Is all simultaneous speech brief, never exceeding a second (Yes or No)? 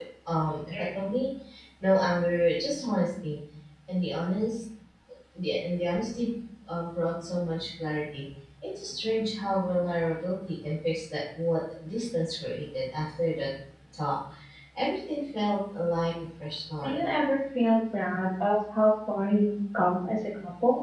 Yes